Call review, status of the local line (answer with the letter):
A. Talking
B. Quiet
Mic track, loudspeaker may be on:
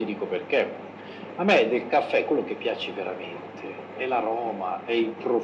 B